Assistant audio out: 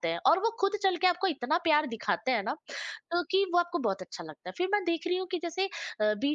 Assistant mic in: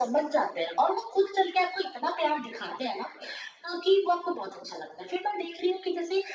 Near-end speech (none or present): none